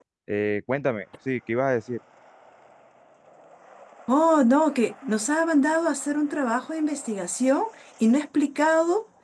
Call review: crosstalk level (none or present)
none